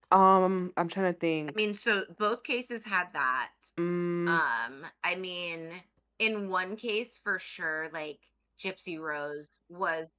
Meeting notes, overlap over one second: none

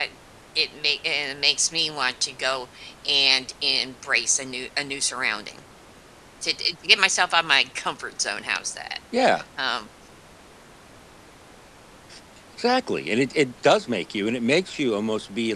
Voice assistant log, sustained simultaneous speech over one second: none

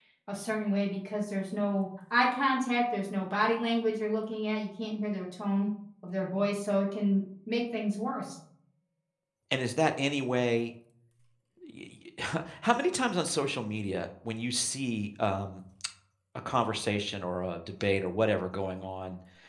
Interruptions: none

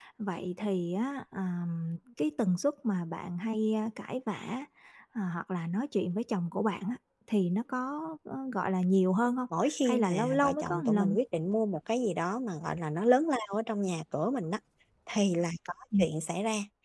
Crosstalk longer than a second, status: present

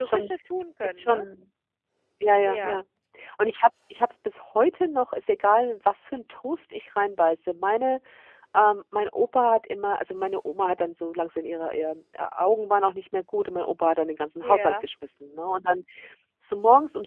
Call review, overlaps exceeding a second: none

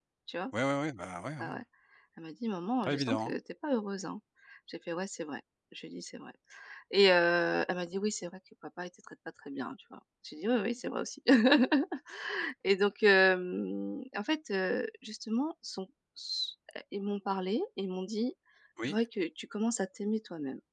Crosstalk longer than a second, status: none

